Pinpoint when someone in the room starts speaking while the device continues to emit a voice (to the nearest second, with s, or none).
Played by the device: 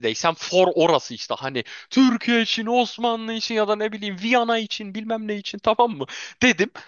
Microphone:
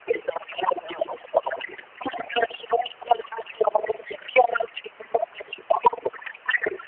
none